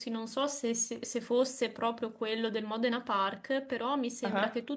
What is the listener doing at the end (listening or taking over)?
listening